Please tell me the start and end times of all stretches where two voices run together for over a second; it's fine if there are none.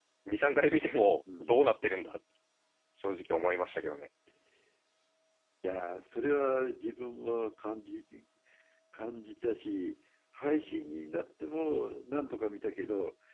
none

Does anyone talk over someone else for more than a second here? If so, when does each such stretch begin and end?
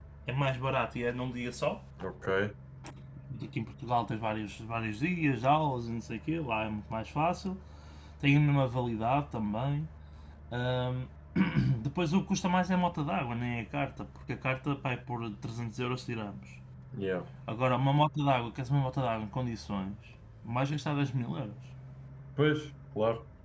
none

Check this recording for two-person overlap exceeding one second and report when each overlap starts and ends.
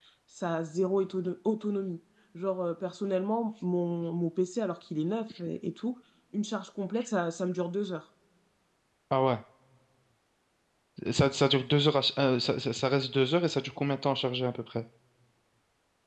none

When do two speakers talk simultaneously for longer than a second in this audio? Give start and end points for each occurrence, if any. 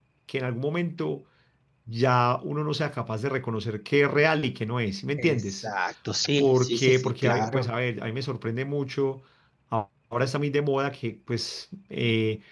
6.4-7.7

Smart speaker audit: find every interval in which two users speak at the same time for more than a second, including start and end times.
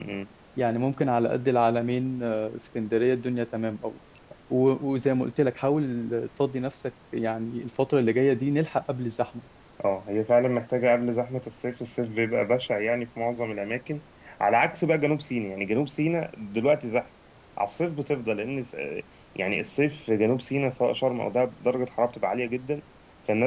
none

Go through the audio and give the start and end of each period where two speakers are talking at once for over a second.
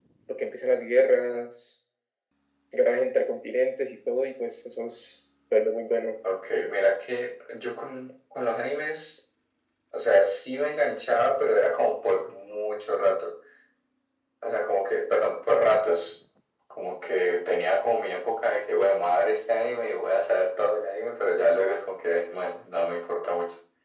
none

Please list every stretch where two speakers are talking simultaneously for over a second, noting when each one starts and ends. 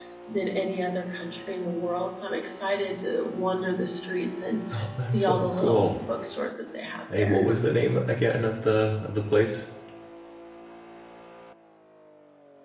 4.7-6.0

